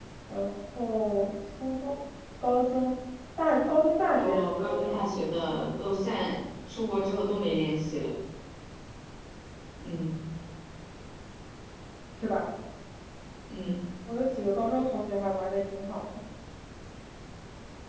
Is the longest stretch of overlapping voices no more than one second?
No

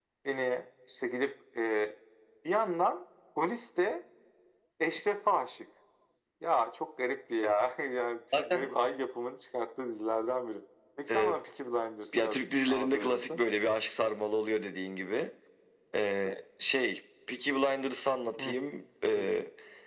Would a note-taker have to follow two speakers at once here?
Yes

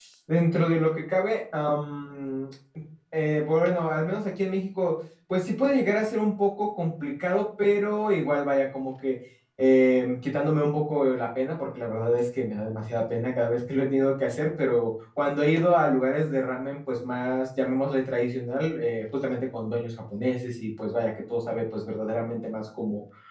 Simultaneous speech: No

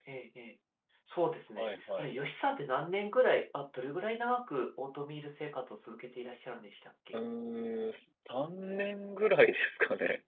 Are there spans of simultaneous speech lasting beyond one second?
No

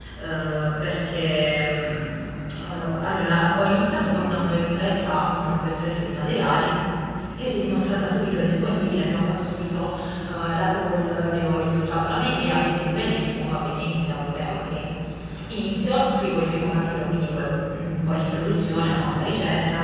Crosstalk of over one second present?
No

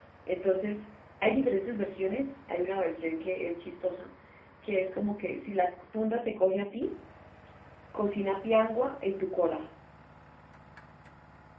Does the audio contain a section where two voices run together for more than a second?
No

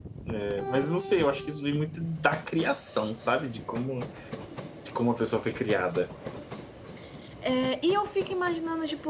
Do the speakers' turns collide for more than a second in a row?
No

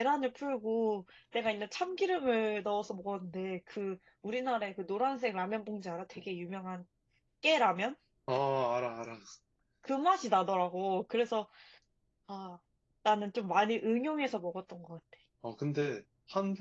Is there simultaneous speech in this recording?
No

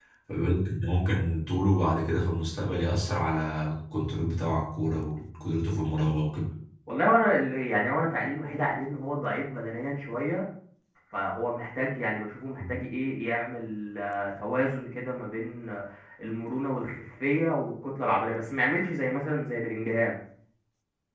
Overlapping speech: No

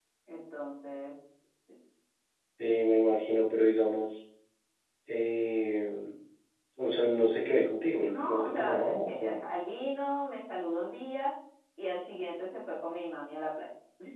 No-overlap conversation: No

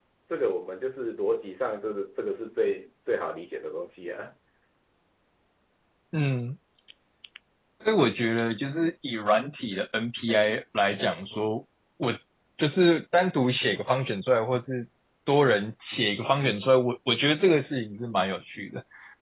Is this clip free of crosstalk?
Yes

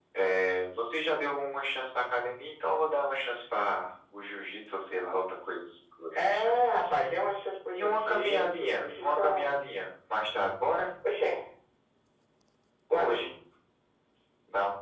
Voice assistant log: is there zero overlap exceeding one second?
No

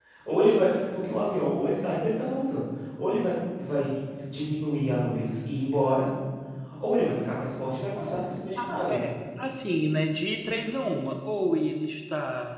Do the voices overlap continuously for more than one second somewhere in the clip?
No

